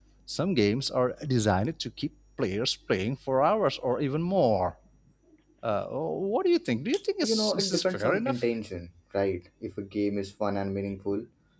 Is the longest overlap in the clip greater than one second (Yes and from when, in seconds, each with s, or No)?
Yes, from 7.2 s